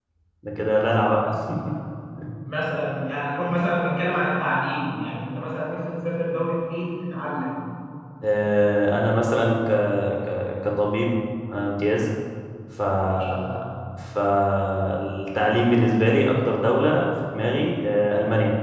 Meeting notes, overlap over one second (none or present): none